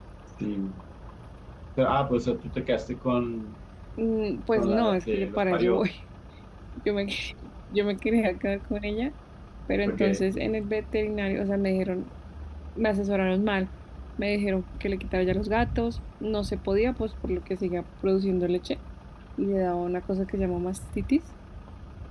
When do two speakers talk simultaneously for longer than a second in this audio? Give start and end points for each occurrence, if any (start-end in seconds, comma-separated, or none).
4.6-5.8